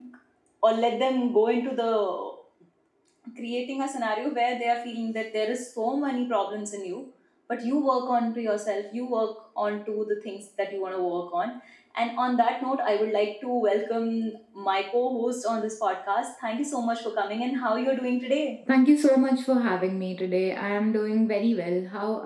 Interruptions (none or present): none